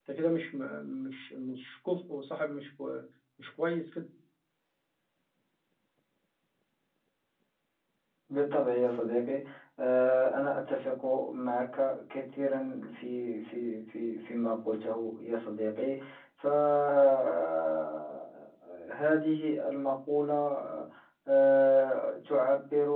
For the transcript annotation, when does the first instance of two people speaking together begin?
none

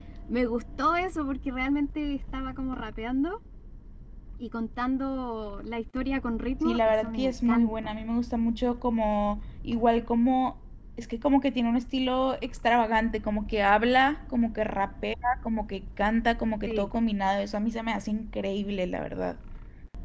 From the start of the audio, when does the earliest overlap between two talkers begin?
6.6 s

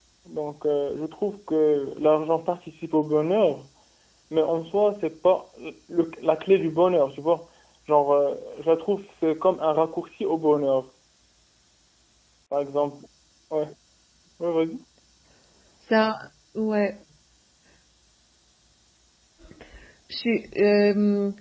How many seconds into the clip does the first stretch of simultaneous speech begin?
none

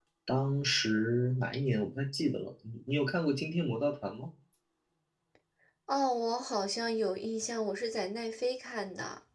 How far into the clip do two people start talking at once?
none

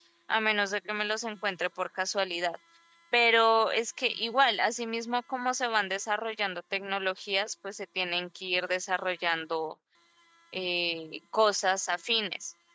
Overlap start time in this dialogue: none

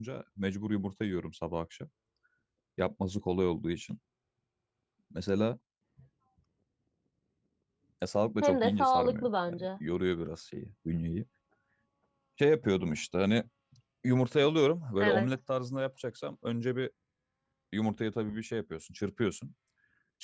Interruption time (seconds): 8.4 s

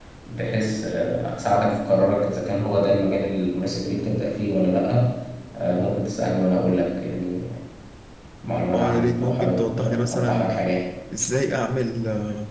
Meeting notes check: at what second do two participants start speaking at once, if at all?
8.7 s

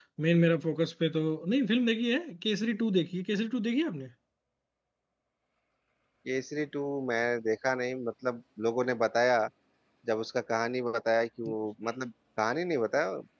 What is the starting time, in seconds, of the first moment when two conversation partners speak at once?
none

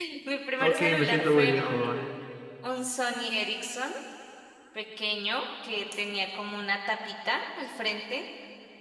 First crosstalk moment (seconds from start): 0.6 s

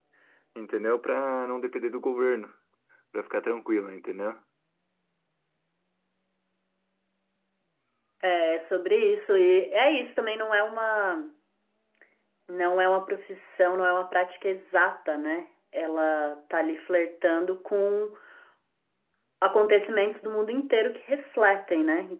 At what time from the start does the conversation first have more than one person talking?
none

